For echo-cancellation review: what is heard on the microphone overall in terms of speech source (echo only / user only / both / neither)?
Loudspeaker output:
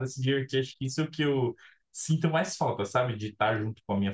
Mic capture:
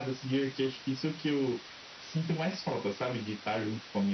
echo only